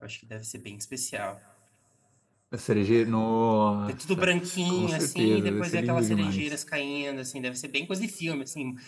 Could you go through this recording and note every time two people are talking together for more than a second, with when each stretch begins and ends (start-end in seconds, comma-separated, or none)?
4.7-6.5